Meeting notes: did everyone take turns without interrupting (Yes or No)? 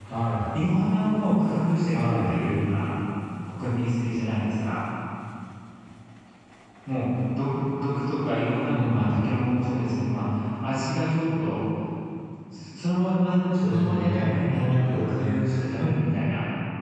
No